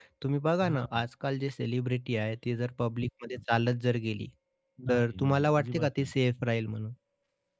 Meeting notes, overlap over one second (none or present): present